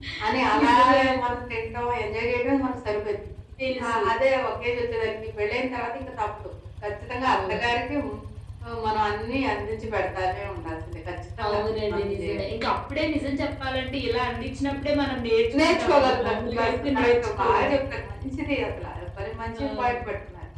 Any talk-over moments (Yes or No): Yes